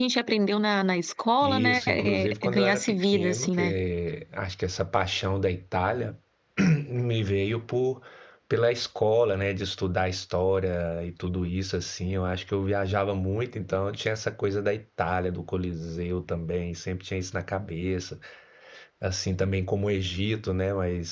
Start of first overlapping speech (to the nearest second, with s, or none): 1 s